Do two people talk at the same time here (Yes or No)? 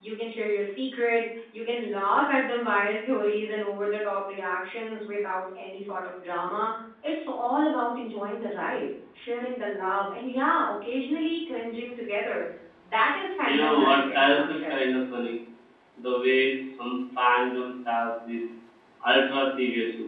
Yes